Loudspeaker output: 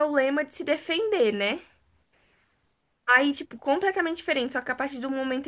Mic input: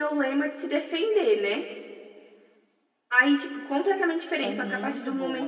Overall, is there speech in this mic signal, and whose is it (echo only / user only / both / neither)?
both